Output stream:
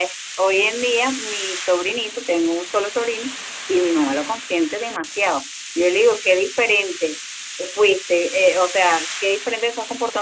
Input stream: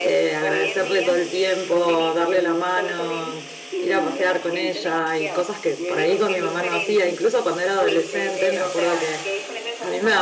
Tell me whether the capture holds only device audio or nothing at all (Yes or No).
No